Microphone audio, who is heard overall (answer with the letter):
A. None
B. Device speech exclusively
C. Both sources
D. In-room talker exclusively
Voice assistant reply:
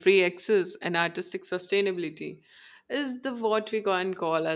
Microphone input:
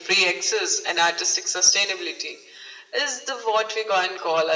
B